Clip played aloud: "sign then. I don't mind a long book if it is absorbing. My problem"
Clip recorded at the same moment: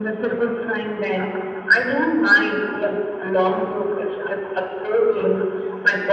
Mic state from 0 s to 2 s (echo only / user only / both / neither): echo only